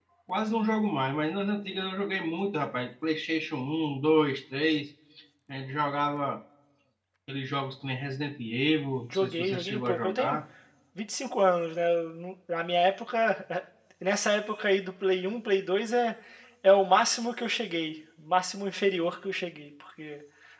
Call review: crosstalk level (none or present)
present